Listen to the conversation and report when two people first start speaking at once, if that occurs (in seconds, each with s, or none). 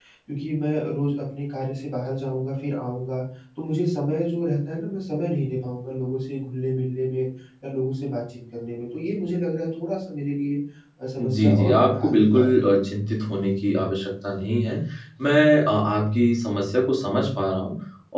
11.2 s